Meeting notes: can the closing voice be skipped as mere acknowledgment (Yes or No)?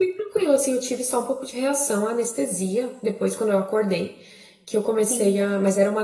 Yes